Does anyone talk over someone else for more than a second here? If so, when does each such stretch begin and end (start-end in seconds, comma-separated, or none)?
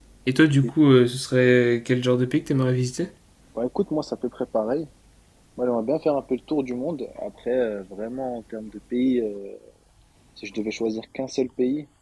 none